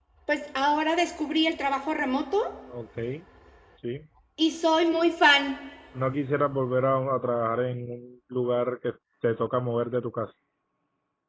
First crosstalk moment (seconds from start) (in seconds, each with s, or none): none